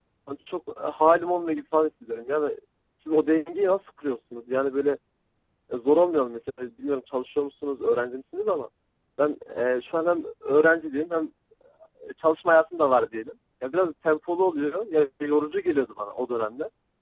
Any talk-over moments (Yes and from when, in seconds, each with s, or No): No